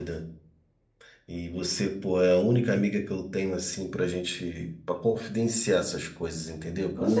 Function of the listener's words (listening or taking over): taking over